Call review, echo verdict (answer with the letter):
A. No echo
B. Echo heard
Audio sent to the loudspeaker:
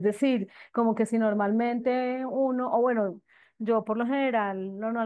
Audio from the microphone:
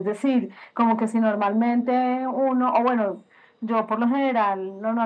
B